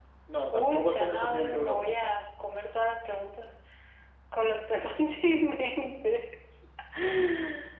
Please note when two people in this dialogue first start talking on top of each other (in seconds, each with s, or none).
0.5 s